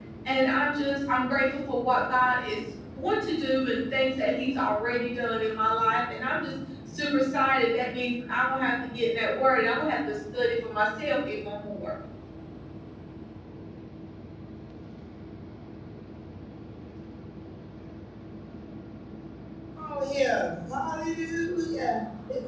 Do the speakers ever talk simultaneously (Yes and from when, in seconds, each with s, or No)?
No